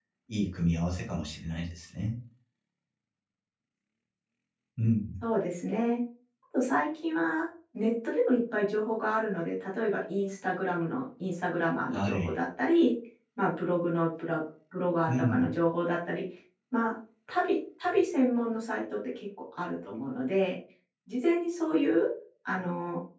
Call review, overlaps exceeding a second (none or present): none